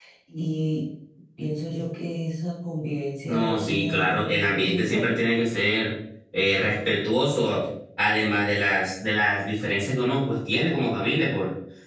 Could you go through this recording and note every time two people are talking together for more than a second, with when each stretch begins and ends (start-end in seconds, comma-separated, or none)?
3.3-5.2